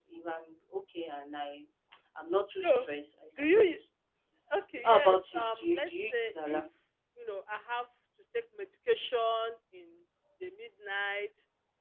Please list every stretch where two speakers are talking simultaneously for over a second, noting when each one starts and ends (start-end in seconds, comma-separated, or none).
4.8-6.6